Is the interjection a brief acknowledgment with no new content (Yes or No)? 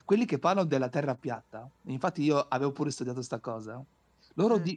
Yes